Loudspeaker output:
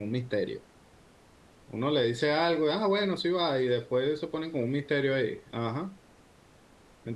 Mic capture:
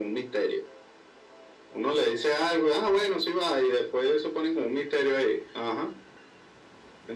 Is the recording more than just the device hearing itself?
No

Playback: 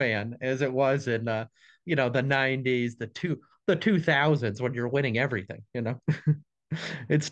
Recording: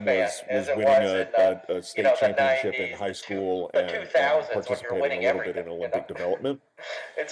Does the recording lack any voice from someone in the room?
No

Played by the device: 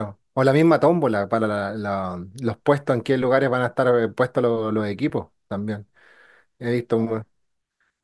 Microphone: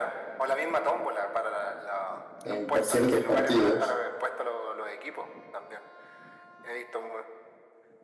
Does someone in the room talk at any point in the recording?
Yes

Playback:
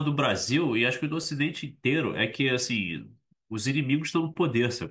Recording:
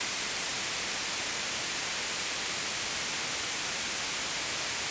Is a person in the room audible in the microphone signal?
No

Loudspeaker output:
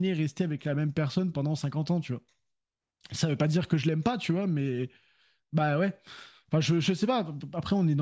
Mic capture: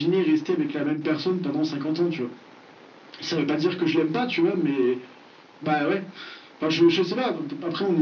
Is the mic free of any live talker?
Yes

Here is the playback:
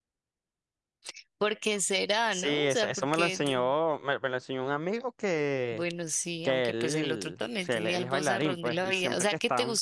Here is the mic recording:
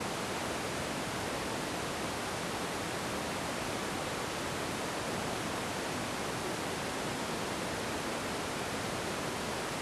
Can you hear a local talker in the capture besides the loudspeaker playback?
No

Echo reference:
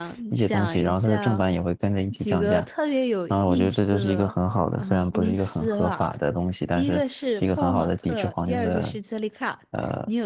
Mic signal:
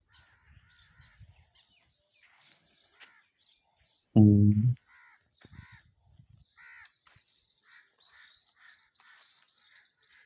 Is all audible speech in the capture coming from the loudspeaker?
No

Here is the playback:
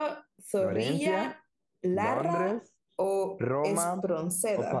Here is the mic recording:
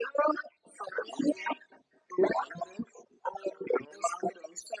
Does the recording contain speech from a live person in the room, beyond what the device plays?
No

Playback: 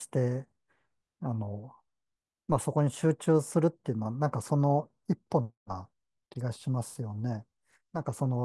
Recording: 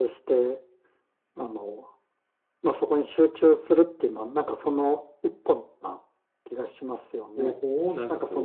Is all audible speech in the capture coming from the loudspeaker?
No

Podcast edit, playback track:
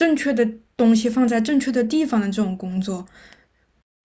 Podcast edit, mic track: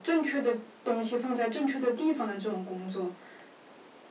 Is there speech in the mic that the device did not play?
No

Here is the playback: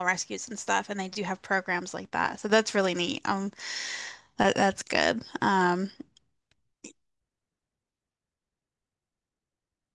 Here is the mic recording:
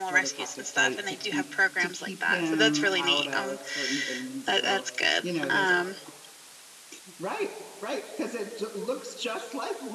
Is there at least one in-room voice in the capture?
Yes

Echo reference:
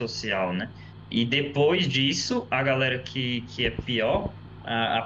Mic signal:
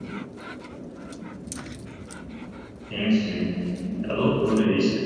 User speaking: Yes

